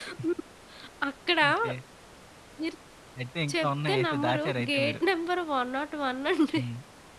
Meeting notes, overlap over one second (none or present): present